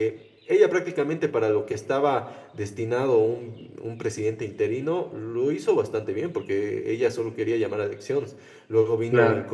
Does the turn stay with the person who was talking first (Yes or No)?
Yes